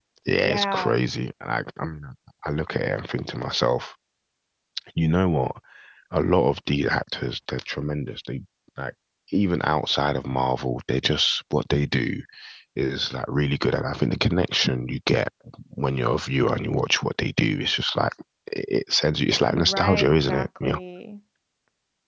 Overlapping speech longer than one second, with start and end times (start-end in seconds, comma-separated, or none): 19.5-20.8